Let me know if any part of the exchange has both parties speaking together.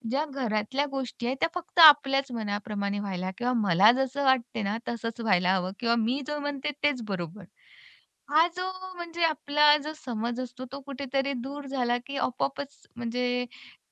No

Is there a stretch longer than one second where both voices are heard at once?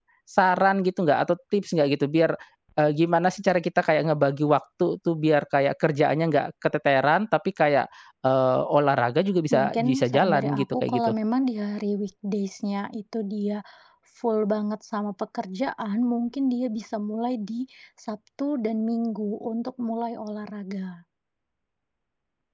Yes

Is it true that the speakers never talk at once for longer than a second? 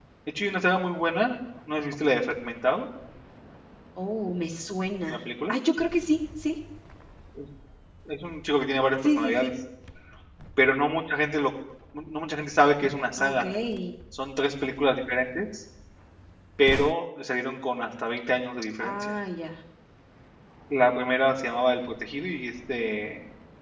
Yes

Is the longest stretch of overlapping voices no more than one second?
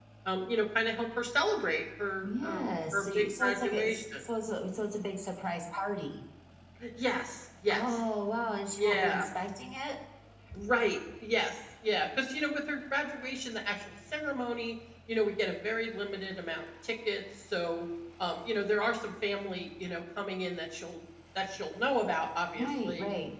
No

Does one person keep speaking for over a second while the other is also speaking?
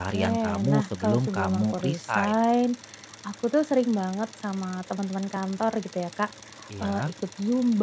Yes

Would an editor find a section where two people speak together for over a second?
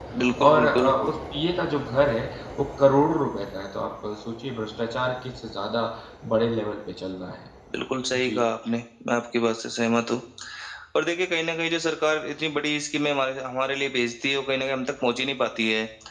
No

